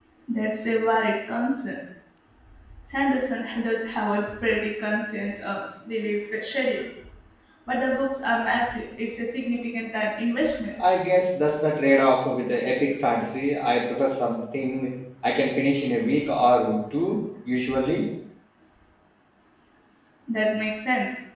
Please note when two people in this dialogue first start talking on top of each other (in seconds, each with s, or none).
none